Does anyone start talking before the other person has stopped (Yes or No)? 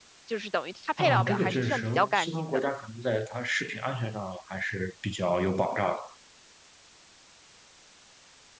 Yes